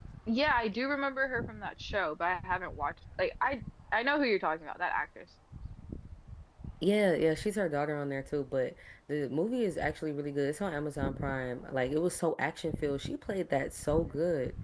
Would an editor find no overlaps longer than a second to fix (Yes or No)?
Yes